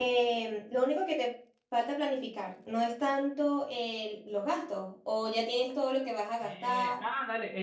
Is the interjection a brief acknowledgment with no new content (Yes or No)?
No